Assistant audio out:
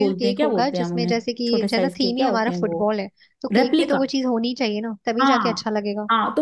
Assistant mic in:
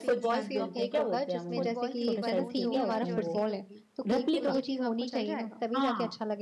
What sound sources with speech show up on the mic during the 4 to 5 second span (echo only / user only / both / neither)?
both